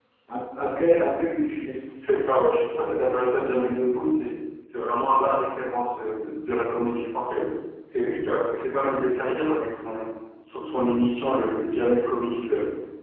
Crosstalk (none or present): none